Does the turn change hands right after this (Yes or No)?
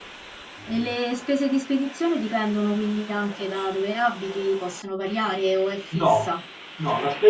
Yes